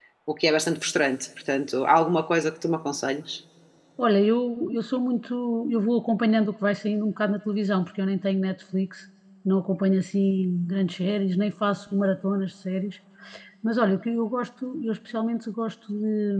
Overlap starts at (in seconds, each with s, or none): none